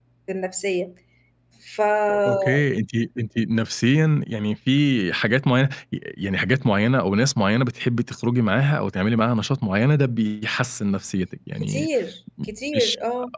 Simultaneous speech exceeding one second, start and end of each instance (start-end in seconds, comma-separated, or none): none